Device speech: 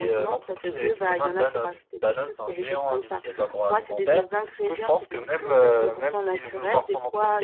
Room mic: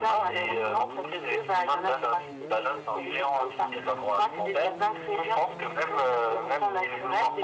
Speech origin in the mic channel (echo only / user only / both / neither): echo only